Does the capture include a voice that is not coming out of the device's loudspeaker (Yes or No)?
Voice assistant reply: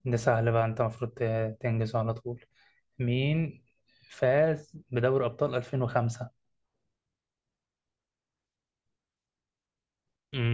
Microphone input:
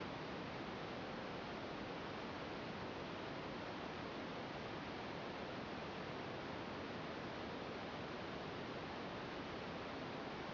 No